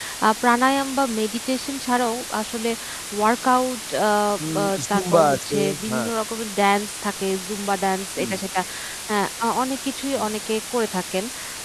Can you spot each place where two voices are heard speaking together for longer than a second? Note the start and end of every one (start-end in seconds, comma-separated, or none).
4.5-6.1